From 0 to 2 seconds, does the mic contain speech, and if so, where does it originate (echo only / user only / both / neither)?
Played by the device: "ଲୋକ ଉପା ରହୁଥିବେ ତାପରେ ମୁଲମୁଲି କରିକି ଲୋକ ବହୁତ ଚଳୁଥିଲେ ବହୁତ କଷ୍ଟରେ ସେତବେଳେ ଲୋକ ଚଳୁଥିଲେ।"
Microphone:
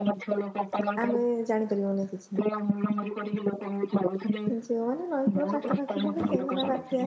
both